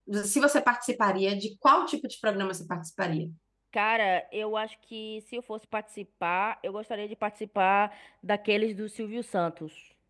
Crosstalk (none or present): none